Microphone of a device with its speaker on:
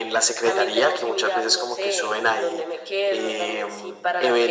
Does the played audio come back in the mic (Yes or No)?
Yes